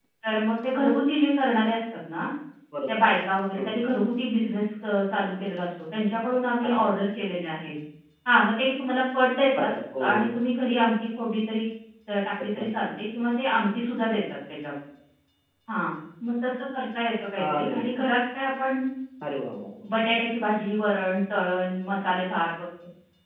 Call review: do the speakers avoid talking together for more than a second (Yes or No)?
Yes